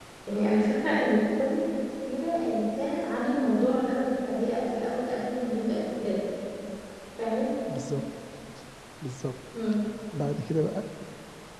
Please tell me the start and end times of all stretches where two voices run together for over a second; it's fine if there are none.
none

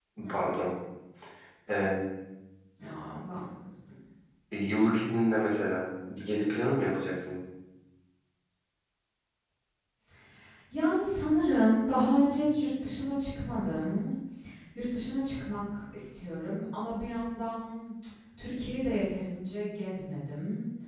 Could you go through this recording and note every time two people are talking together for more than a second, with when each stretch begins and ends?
none

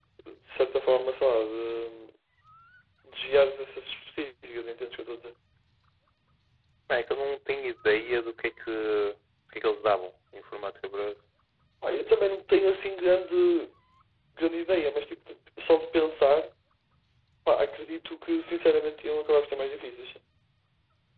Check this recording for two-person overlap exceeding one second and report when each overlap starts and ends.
none

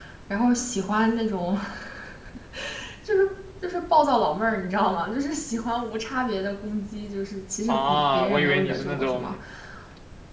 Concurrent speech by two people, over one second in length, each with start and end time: 7.7-9.3

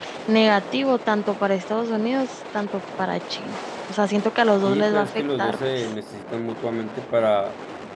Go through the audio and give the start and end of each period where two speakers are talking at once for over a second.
4.6-5.9

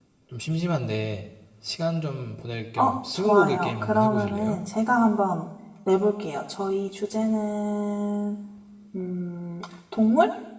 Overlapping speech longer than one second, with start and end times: 2.8-4.6

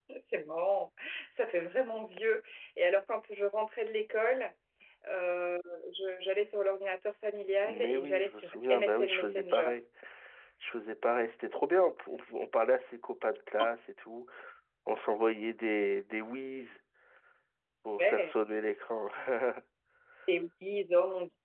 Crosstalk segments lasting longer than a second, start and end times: 7.7-9.7

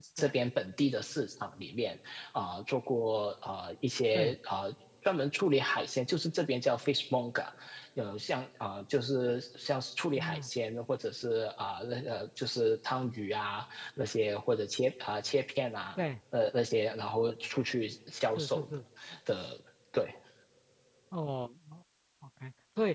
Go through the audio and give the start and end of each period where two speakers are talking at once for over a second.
none

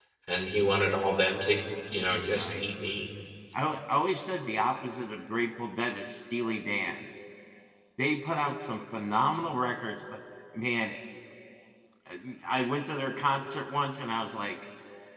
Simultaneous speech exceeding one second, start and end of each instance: none

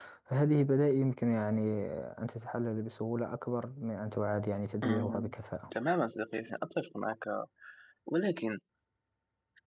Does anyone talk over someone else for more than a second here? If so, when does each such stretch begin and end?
none

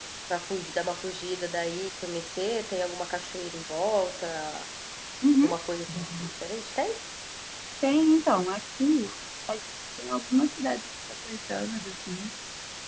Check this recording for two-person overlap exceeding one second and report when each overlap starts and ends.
none

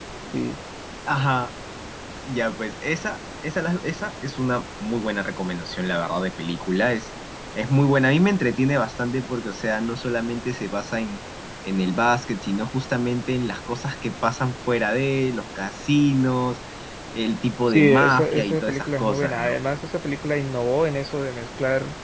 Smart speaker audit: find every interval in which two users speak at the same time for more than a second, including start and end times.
17.7-19.6

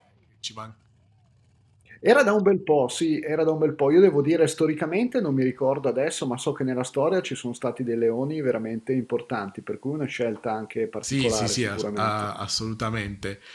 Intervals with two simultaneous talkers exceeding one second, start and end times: 11.0-12.3

